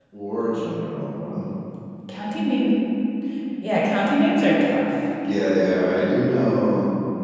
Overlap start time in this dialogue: none

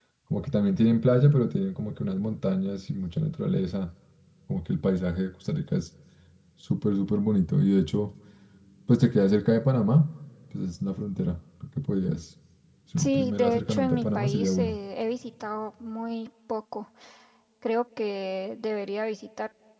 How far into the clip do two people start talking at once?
13.0 s

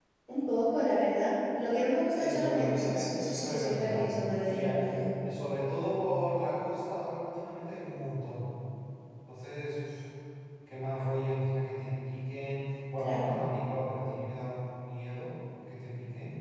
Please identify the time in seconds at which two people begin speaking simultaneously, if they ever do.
2.1 s

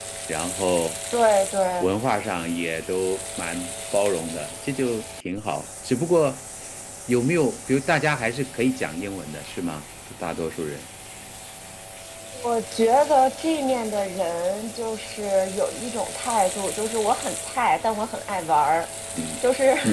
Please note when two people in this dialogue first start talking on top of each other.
none

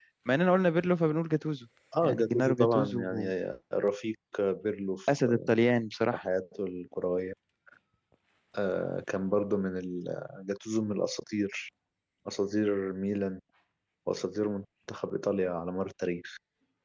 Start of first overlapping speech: 2.0 s

